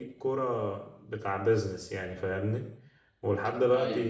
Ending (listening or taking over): listening